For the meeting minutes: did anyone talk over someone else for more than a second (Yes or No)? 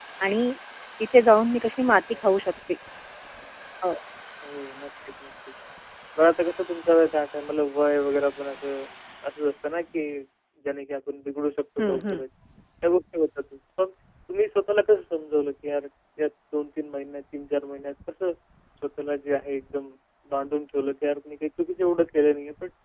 No